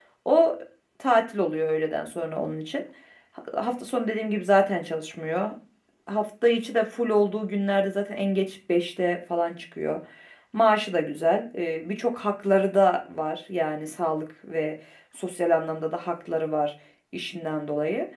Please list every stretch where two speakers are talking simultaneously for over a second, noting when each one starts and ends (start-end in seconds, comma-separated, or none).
none